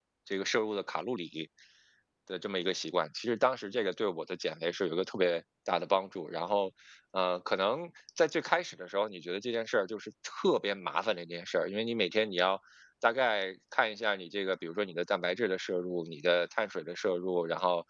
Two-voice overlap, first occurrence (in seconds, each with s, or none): none